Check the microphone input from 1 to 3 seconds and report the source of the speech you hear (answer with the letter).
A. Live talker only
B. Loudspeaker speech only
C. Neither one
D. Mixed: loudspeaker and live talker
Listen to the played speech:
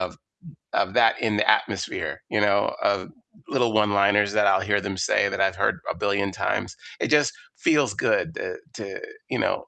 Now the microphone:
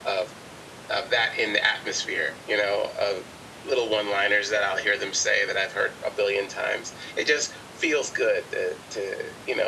B